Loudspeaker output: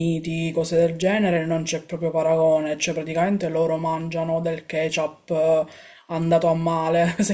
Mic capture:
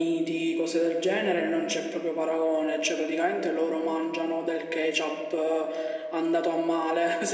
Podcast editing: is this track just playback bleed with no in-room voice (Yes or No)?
Yes